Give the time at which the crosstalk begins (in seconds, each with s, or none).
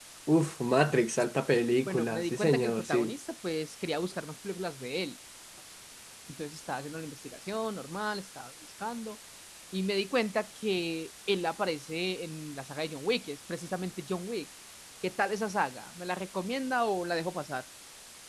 1.9 s